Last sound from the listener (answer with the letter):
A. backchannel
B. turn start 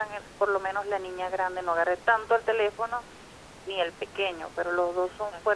A